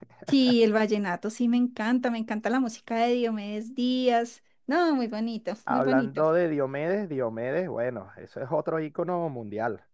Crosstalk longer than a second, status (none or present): none